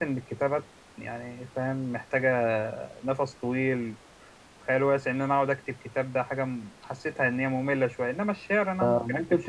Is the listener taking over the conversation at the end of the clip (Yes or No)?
Yes